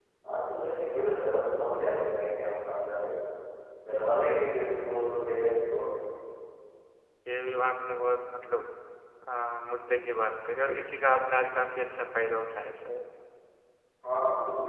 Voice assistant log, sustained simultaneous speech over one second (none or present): none